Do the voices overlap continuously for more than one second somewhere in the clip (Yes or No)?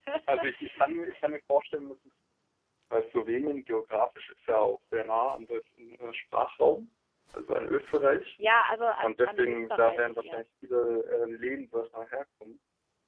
Yes